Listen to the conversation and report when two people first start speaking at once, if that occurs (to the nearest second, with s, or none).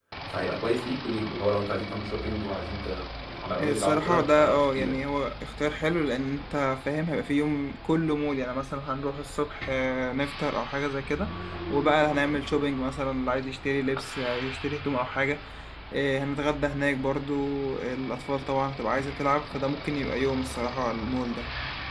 4 s